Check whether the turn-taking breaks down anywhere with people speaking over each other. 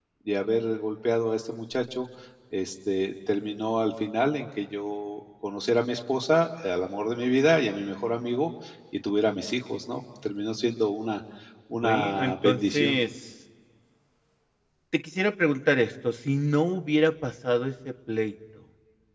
Yes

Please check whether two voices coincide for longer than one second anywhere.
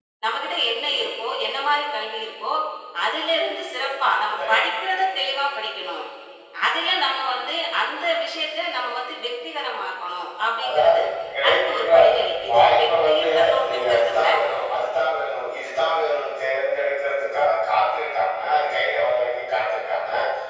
Yes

